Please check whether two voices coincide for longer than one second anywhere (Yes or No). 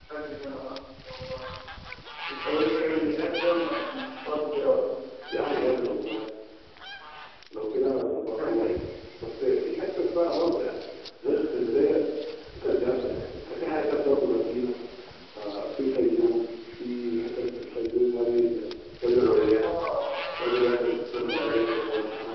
No